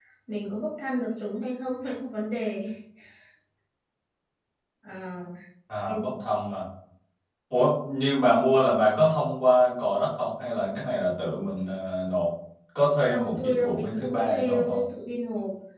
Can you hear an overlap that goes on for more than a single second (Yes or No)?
Yes